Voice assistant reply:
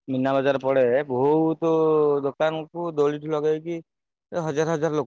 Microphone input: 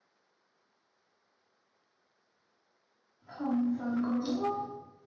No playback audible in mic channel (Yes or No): Yes